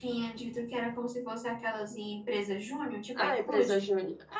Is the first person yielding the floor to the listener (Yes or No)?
Yes